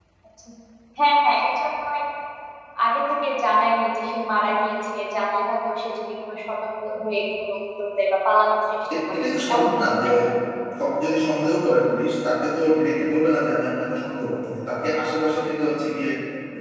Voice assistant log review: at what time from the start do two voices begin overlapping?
8.9 s

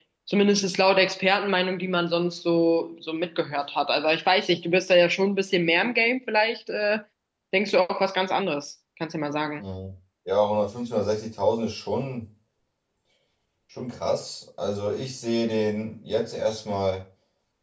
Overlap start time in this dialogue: none

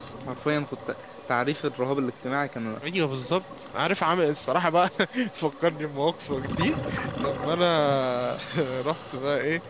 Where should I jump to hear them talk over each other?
none

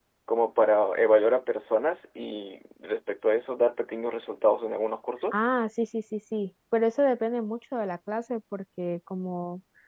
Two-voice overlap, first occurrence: none

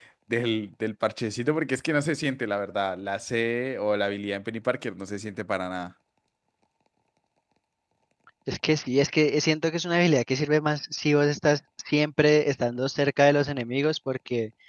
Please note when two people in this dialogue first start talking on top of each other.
none

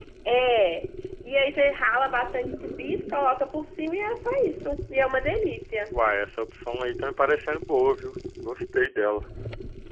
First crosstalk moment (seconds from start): none

